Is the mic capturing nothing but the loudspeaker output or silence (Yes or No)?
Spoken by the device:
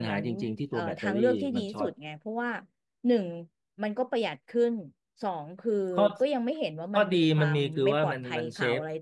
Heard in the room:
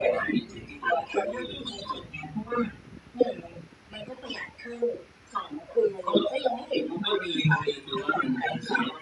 Yes